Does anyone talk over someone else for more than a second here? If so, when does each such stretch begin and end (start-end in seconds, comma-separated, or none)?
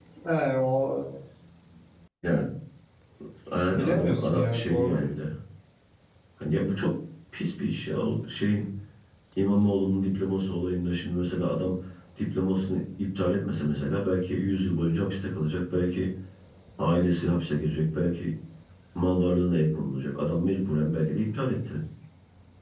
3.7-5.0